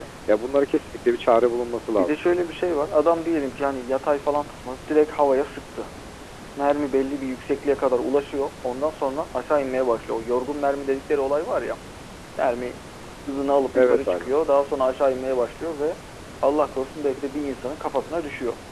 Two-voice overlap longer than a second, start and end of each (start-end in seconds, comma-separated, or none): none